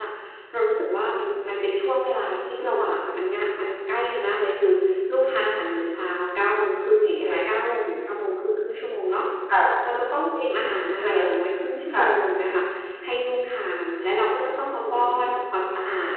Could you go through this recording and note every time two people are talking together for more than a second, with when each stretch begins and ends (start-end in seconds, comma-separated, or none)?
none